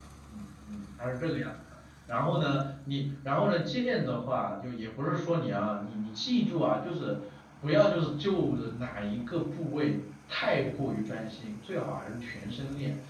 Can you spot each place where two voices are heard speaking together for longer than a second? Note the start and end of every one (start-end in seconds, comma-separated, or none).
none